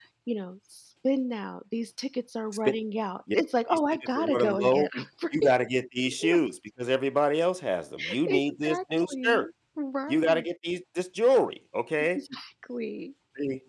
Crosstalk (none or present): present